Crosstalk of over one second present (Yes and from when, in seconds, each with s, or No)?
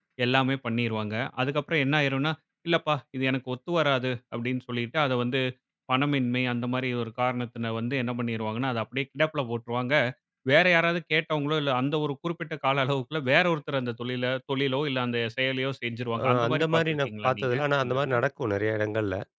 Yes, from 16.1 s